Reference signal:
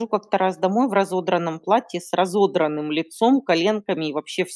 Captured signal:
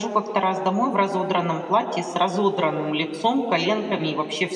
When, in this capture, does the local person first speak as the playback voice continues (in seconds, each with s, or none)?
none